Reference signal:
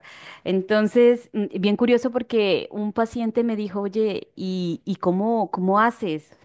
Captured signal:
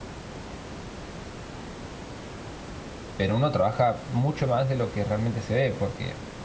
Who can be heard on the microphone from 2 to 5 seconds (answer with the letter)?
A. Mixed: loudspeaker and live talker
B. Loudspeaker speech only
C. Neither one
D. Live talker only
D